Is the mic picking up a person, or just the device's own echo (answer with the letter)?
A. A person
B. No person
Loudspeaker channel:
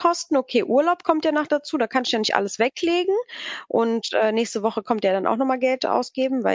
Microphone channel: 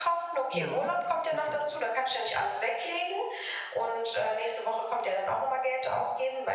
A